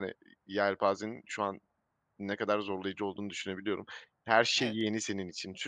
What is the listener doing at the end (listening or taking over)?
listening